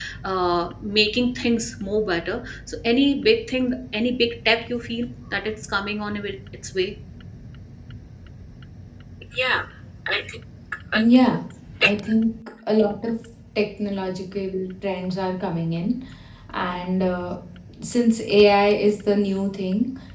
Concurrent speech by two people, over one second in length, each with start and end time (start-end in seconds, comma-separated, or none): none